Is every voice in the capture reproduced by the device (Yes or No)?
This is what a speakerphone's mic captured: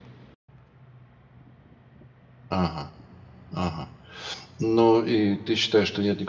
No